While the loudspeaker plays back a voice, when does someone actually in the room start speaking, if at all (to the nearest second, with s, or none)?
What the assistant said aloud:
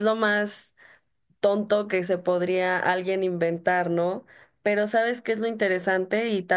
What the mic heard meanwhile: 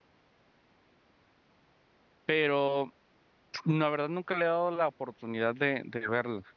2 s